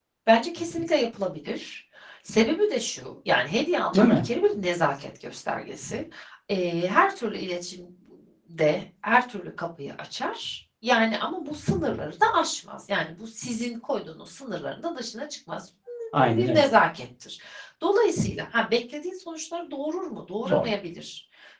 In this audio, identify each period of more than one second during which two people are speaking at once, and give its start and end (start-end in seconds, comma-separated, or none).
none